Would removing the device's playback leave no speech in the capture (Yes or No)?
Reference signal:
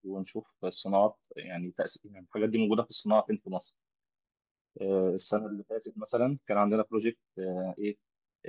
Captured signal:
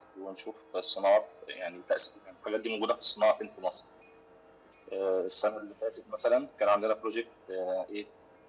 Yes